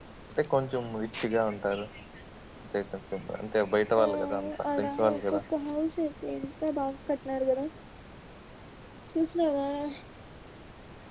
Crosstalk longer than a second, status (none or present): present